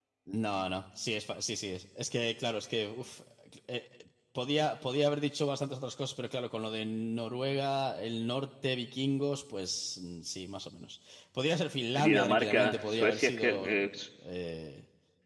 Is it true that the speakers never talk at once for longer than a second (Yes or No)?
No